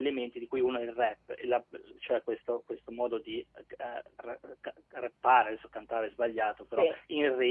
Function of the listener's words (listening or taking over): listening